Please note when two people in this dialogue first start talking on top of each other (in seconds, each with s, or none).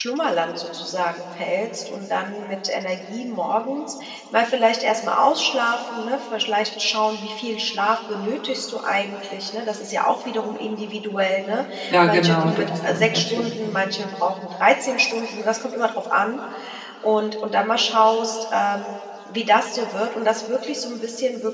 12.0 s